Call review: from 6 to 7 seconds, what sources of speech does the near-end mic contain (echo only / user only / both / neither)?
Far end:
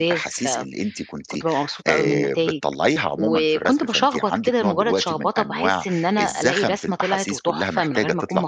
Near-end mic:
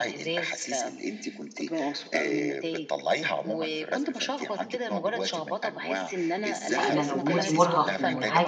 both